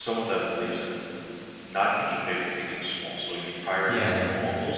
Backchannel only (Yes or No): Yes